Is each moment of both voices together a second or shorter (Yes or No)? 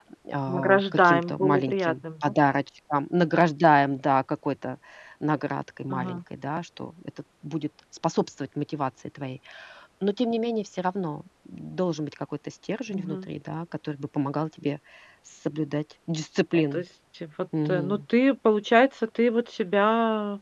No